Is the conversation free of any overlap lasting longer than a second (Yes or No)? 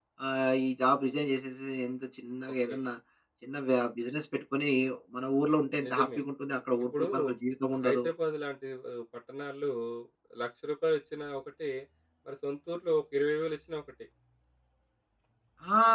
Yes